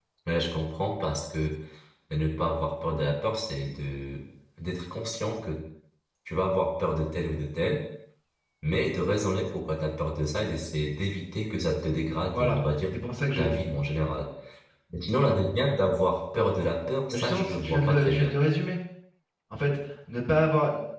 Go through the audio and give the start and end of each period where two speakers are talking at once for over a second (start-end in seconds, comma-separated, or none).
17.1-18.3